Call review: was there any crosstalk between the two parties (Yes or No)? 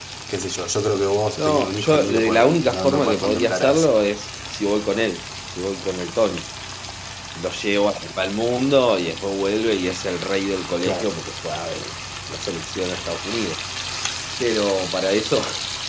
Yes